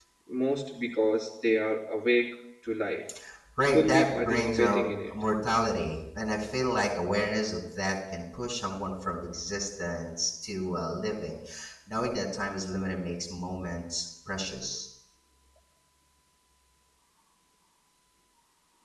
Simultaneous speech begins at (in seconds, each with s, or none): 3.7 s